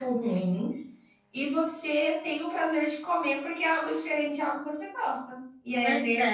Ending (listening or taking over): listening